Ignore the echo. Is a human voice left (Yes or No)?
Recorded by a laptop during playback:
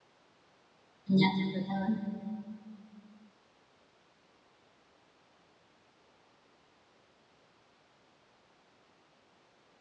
Yes